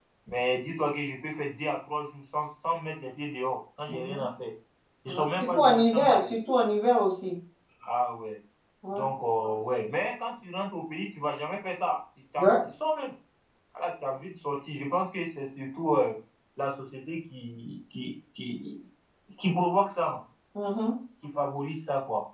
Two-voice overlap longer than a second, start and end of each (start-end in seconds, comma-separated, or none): 5.1-6.3